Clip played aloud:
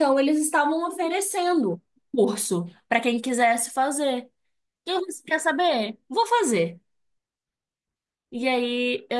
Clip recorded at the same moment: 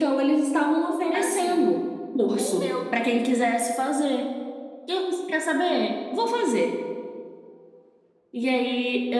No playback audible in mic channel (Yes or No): No